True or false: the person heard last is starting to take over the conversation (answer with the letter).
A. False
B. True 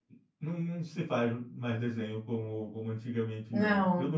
A